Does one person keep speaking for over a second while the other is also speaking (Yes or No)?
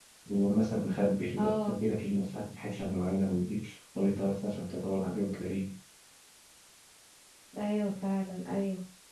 No